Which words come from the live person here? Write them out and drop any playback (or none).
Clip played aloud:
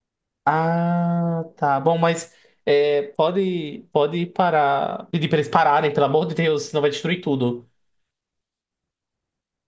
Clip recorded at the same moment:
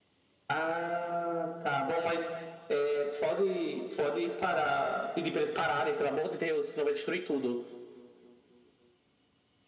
none